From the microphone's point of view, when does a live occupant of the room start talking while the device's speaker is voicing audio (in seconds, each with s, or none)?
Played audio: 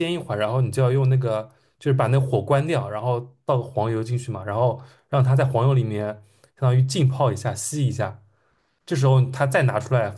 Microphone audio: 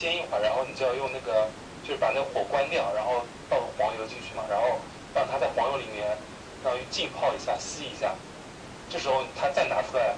none